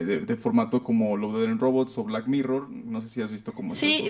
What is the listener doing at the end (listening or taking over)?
taking over